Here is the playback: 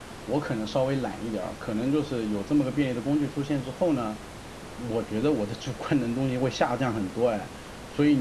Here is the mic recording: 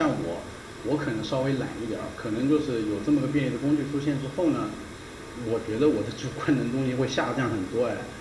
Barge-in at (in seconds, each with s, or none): none